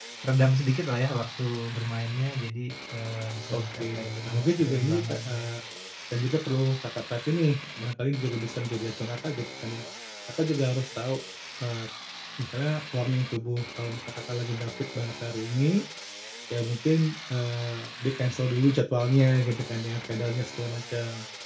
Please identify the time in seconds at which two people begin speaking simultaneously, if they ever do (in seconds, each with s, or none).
3.5 s